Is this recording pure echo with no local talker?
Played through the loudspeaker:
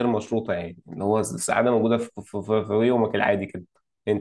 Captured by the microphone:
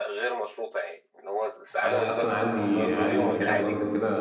No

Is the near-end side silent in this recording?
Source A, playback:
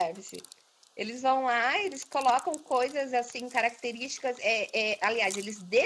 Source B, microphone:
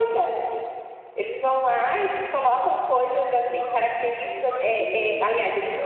No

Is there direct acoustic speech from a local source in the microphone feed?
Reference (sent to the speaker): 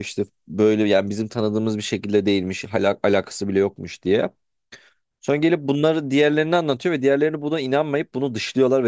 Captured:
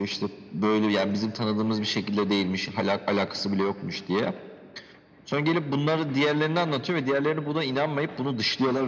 No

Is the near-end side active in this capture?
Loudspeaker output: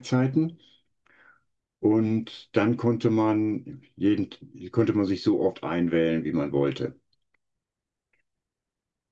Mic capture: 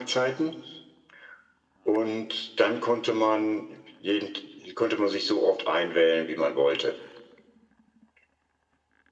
No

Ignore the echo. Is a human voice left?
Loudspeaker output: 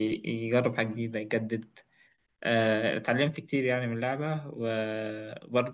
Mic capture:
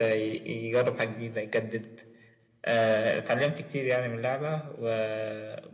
No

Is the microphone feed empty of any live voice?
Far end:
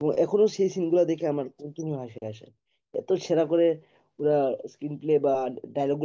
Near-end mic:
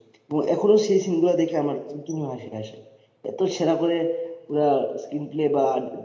Yes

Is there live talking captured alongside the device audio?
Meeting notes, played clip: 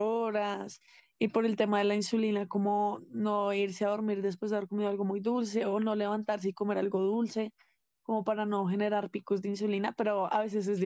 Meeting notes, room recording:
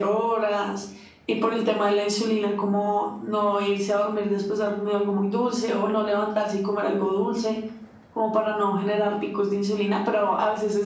No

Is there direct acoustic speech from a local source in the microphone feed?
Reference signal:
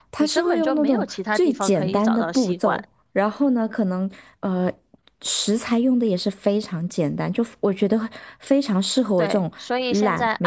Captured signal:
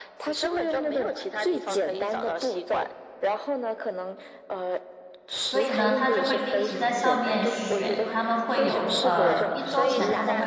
Yes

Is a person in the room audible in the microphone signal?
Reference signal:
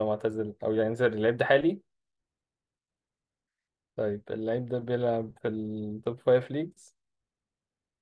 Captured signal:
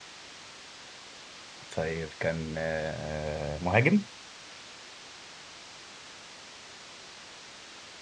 Yes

